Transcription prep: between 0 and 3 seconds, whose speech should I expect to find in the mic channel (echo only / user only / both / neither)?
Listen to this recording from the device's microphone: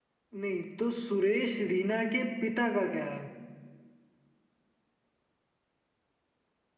user only